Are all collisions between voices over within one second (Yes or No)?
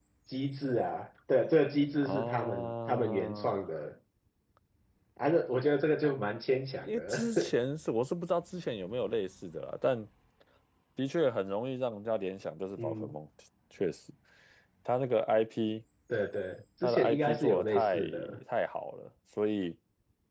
No